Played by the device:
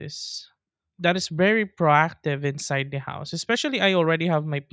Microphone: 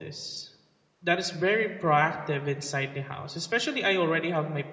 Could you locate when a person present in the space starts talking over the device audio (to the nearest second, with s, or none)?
none